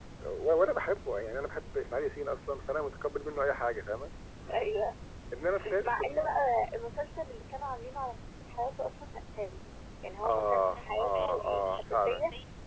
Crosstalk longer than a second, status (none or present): present